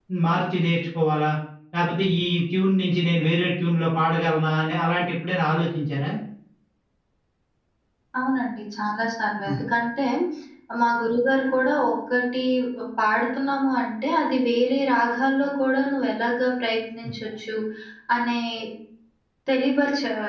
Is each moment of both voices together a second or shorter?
Yes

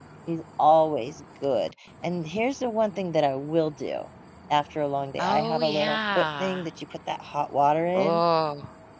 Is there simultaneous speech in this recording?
Yes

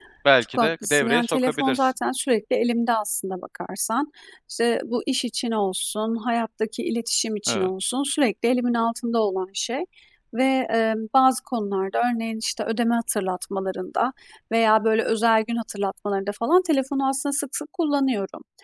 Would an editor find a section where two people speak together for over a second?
Yes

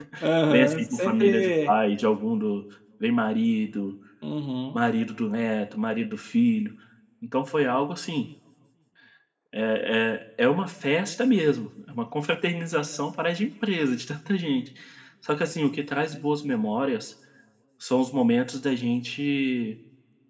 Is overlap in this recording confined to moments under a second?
No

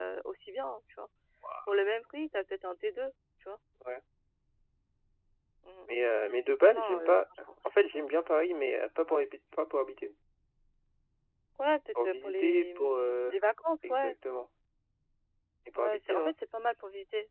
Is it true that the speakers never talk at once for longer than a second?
No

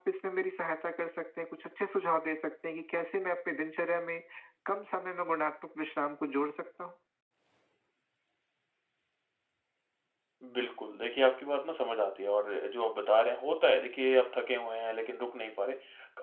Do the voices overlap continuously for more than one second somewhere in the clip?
No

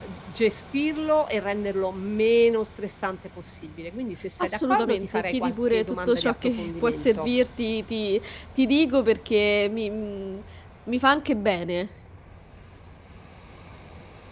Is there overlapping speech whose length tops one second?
Yes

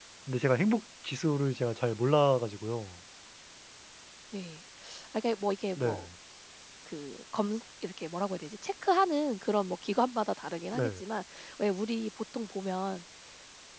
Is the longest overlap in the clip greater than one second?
No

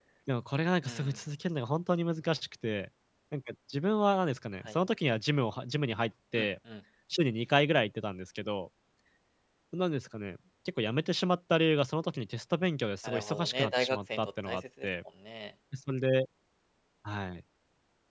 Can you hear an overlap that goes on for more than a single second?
Yes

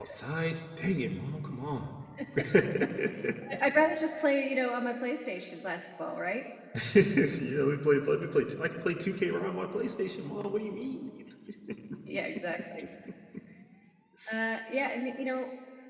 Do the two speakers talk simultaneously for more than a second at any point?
No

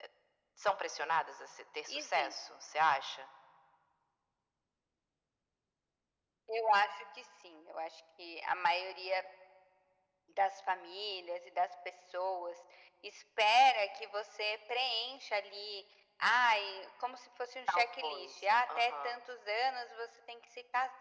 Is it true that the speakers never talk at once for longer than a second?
No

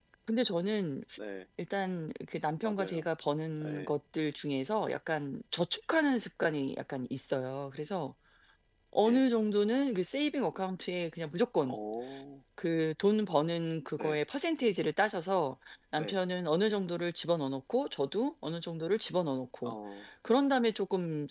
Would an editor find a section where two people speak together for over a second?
No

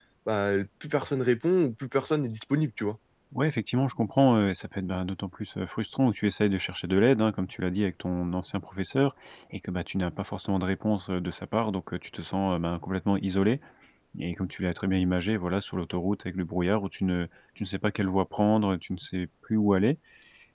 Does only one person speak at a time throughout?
Yes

